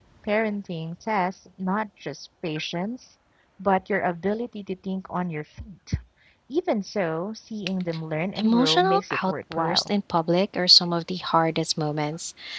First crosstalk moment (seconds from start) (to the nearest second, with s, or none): 8 s